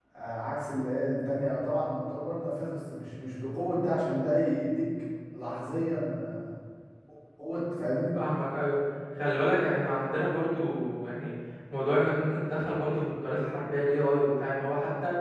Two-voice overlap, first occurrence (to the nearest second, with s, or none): none